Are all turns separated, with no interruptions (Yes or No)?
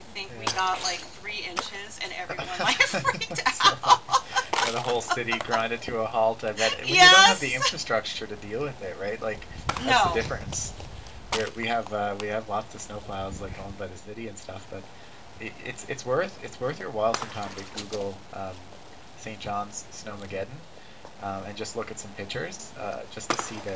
No